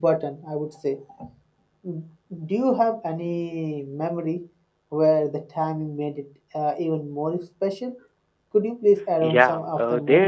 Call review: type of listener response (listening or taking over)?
taking over